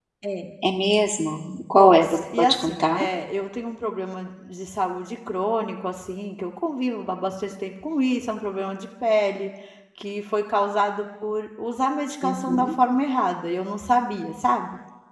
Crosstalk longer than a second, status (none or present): present